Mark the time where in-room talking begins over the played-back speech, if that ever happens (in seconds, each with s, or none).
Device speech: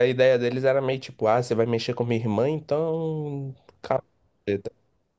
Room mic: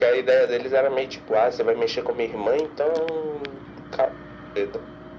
none